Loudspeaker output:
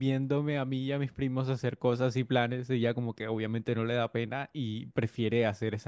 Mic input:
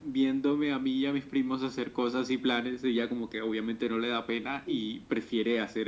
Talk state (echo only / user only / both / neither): both